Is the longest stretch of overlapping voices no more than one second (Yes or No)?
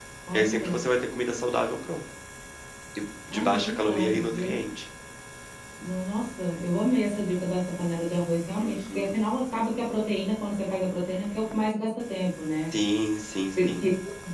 No